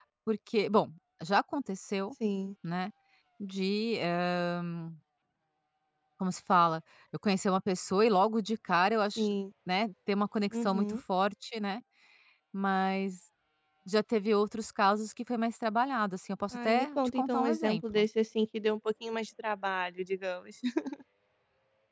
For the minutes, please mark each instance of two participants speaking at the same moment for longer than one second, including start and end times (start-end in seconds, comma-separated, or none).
16.5-18.1